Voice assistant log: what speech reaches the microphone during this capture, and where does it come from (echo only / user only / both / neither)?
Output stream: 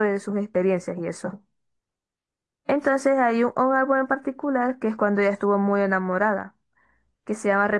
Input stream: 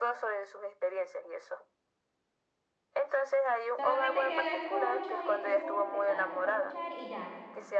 both